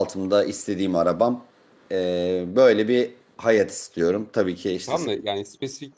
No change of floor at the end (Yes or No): No